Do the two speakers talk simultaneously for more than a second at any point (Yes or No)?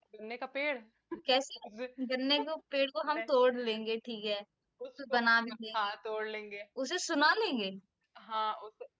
No